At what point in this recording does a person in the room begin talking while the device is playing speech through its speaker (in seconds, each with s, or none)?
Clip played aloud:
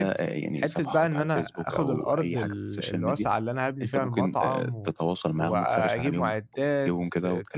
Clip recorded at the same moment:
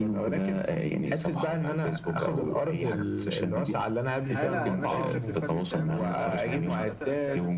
4.2 s